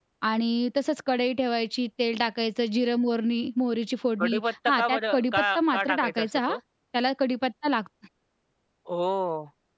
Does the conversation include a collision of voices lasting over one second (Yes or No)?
Yes